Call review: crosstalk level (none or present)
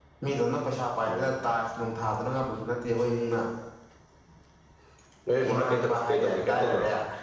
present